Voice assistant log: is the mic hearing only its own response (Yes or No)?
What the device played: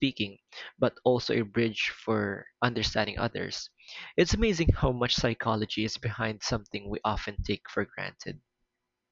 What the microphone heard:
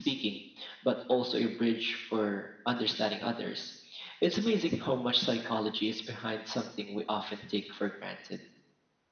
Yes